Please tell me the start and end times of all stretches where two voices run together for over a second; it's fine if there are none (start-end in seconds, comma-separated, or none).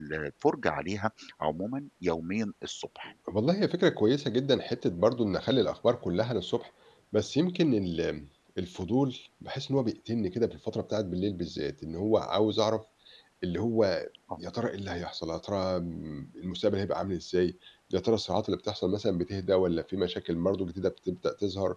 none